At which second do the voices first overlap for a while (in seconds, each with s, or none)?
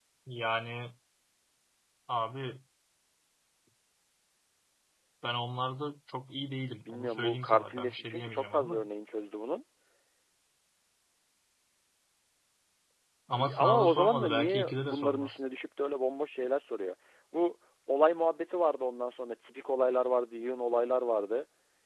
6.9 s